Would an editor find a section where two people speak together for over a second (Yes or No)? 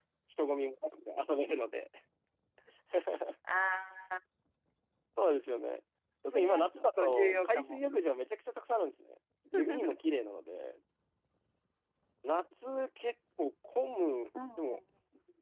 Yes